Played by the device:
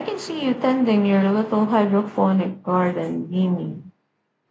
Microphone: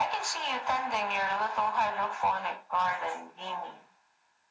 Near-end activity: none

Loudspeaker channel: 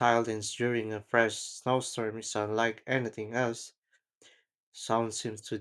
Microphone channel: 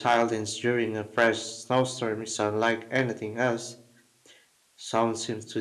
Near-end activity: none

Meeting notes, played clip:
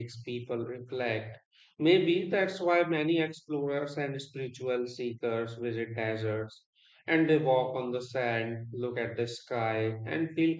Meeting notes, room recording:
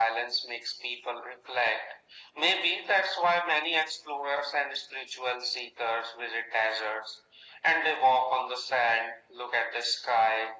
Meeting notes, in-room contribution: none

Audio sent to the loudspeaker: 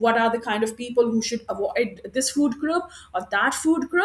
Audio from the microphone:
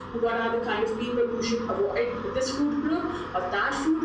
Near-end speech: none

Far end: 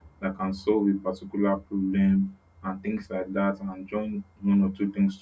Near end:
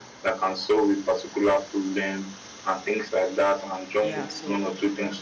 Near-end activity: present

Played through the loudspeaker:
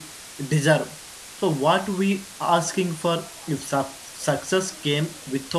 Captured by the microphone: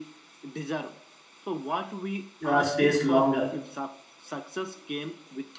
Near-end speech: present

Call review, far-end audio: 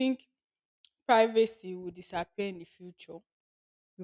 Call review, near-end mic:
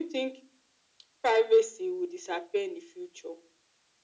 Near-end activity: none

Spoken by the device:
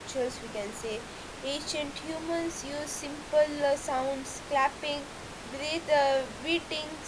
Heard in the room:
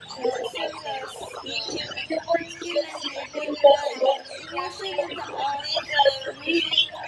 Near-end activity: present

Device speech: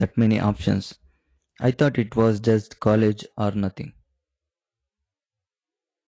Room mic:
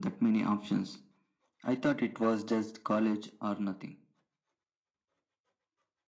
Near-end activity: none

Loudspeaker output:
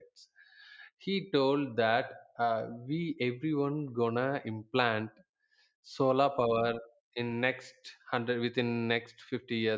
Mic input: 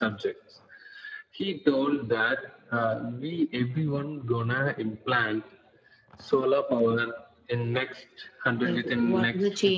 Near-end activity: present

